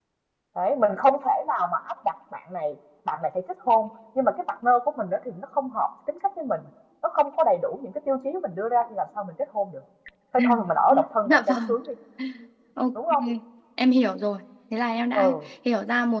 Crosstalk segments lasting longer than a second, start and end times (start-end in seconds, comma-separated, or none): none